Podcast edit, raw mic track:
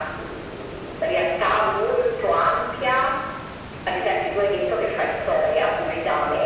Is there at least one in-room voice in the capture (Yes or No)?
No